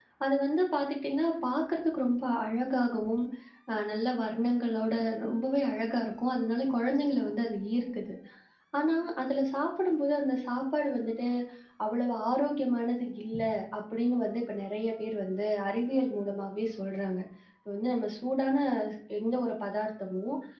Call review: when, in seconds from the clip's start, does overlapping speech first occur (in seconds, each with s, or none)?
none